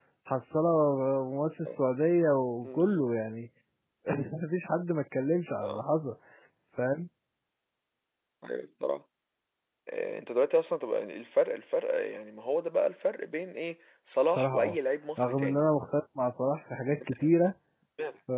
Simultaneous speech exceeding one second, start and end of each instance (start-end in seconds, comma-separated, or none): none